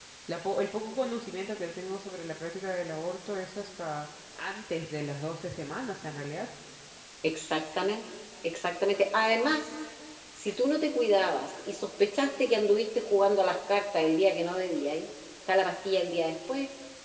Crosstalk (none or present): none